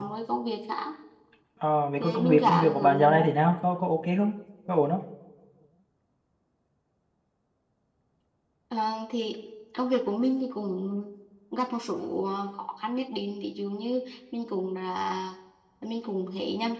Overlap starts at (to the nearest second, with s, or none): 2 s